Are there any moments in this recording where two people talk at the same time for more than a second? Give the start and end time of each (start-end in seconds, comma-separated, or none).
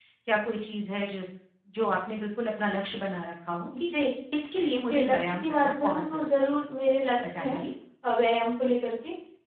4.9-6.6